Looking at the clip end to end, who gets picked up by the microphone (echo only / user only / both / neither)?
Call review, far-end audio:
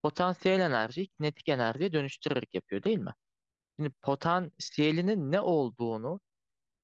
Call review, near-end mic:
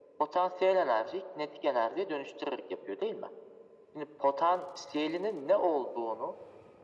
echo only